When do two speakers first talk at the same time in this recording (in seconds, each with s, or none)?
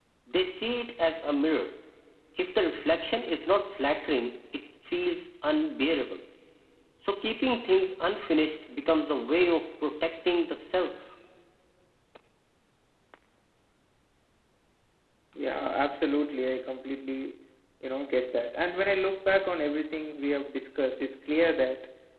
none